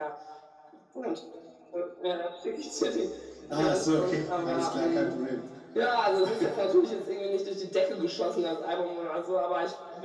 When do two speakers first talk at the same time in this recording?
3.5 s

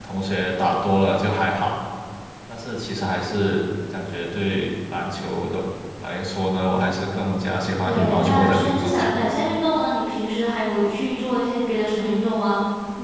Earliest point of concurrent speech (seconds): 7.8 s

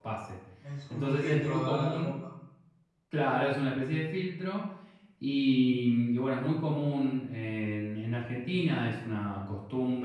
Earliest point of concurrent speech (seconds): 0.9 s

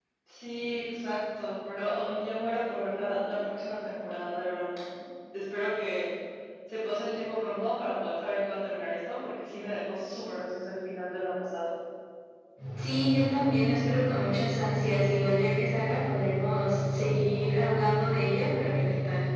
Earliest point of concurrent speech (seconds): none

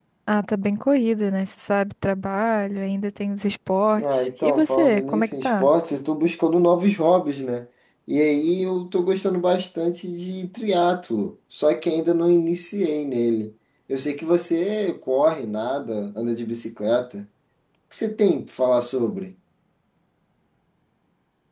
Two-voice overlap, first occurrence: 4.0 s

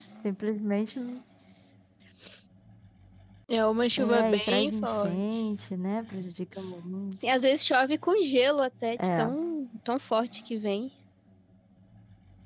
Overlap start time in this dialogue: 4.0 s

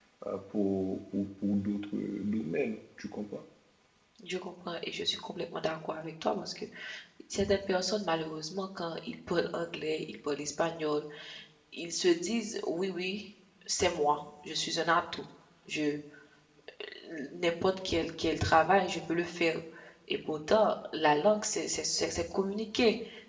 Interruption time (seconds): none

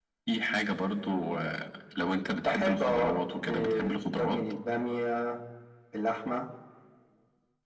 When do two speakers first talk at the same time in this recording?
2.4 s

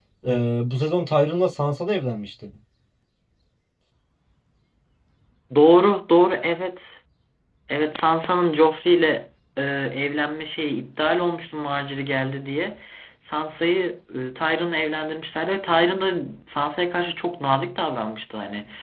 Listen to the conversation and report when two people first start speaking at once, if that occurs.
none

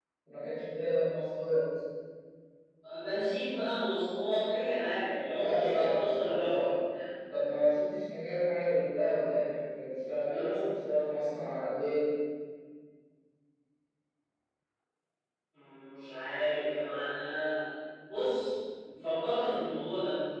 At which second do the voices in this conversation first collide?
5.3 s

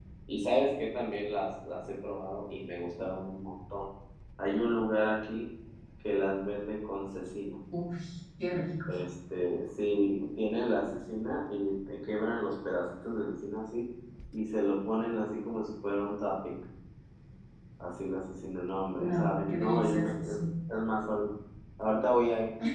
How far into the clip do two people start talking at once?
19.0 s

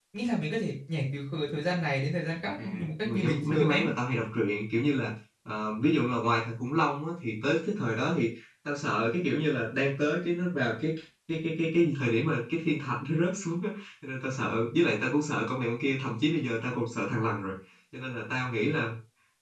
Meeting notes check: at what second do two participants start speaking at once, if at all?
2.6 s

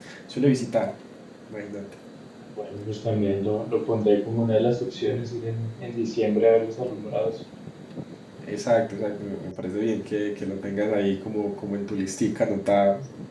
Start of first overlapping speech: none

